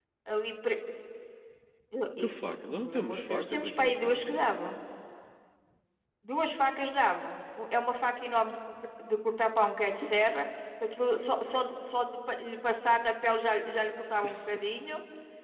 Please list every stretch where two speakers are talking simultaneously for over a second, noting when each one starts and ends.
2.2-4.5

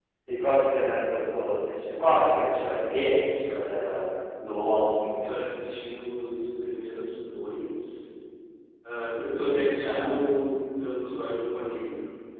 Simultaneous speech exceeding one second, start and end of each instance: none

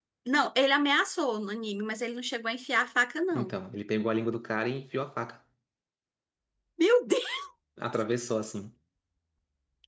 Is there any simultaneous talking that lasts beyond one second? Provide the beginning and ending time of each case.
none

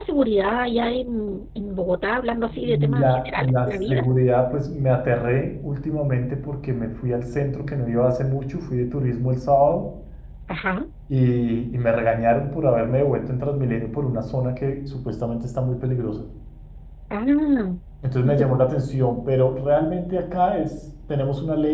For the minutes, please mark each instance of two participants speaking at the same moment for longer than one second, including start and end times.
2.5-4.0

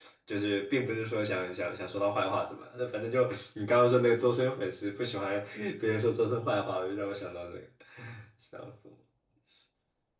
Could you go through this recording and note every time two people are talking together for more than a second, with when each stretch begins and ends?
none

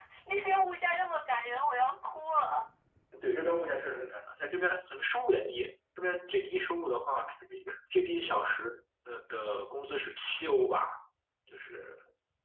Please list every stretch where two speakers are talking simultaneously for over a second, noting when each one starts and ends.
none

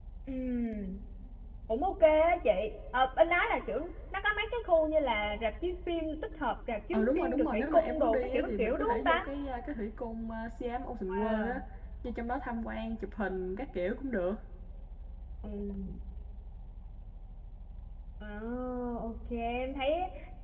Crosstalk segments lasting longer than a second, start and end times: 6.9-9.2

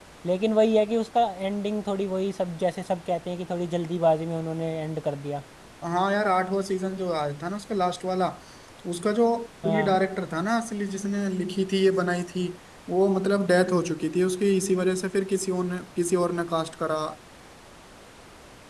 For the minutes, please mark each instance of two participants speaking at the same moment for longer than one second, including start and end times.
none

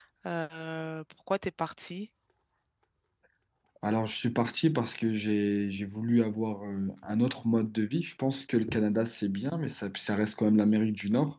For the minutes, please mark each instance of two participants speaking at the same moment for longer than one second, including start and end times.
none

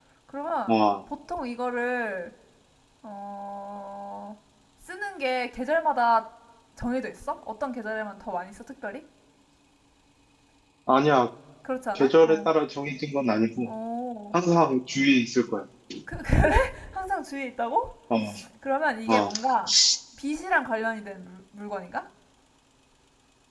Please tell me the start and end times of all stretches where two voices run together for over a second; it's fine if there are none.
none

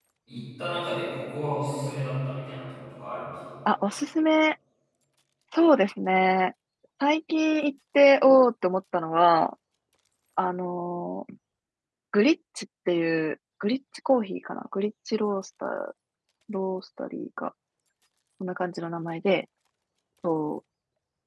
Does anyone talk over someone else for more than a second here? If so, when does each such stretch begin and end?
none

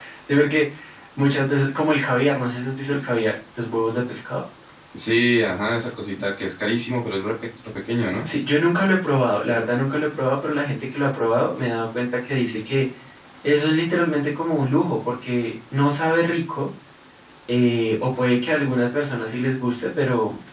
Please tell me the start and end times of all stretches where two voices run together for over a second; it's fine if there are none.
none

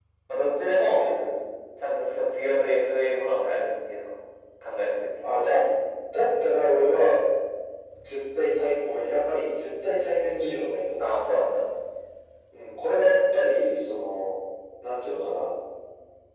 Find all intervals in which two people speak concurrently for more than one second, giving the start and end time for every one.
none

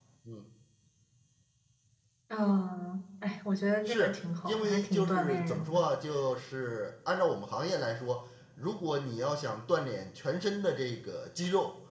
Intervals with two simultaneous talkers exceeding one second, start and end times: 3.9-5.8

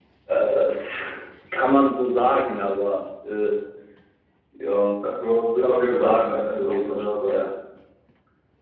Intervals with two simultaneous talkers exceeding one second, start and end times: 5.6-7.4

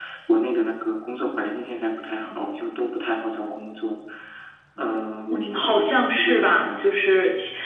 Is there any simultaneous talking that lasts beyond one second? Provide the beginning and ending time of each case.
5.3-6.7

